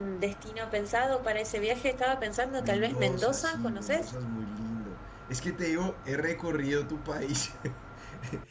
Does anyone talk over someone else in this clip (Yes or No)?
Yes